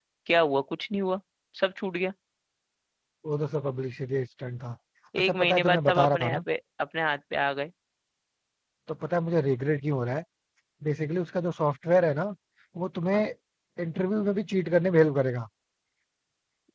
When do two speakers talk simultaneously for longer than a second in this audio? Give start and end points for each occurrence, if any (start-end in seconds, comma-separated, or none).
5.2-6.4